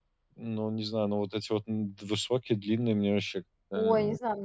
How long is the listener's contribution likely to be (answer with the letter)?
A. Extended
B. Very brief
A